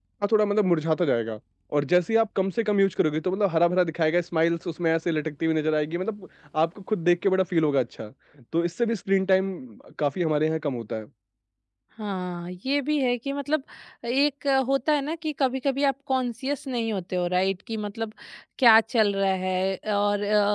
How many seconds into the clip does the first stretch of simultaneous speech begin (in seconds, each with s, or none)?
none